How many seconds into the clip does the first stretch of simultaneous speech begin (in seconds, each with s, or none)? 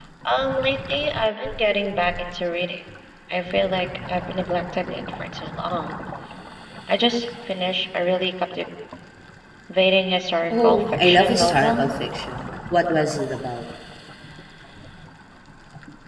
10.5 s